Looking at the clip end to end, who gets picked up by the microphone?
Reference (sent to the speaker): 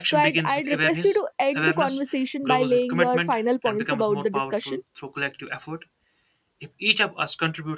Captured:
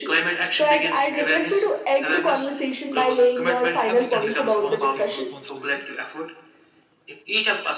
both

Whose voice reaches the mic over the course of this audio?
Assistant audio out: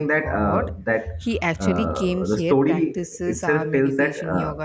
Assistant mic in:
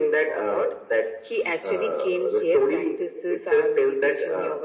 echo only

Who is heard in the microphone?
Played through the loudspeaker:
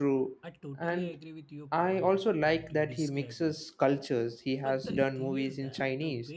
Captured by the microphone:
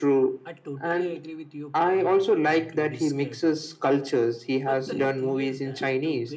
echo only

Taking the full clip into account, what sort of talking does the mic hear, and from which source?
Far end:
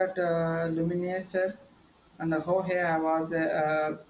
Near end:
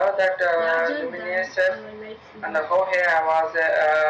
both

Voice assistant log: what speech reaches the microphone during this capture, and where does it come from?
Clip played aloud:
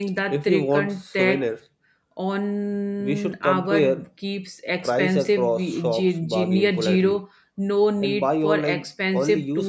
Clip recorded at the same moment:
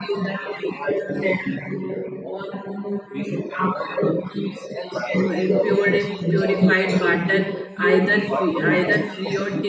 both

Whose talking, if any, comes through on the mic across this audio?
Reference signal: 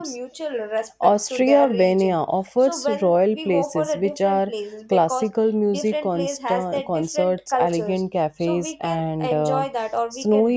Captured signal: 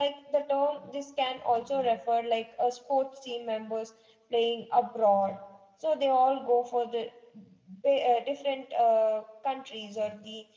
user only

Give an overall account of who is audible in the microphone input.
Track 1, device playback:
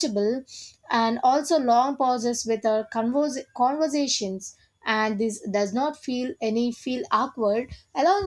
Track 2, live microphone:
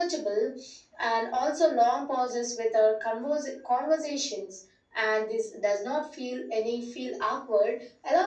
echo only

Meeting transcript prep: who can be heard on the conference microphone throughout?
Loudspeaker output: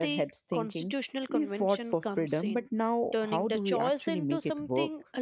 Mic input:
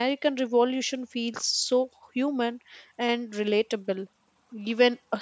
user only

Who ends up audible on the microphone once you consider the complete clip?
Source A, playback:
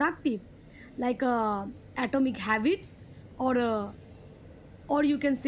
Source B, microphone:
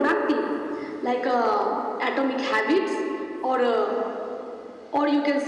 echo only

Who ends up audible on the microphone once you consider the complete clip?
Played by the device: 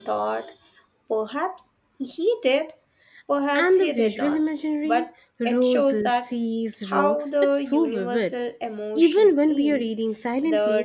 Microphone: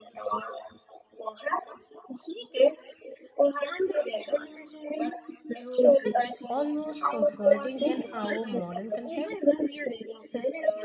both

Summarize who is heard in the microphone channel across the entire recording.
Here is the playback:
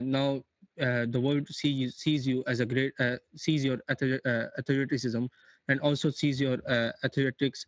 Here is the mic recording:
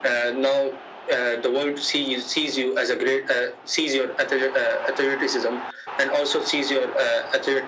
echo only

